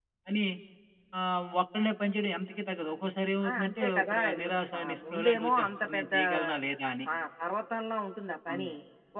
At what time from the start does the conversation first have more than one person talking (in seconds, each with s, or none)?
3.4 s